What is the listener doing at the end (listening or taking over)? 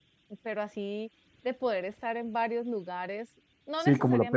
taking over